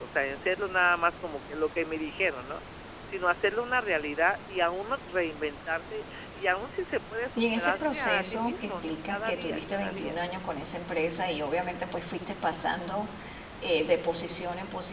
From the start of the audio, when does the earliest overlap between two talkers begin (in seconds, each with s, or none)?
7.4 s